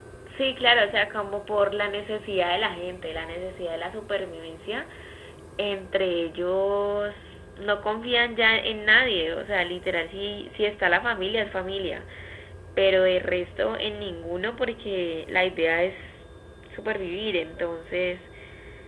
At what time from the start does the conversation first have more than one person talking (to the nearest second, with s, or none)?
none